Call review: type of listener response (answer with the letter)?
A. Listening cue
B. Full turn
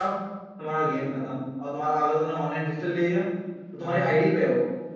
A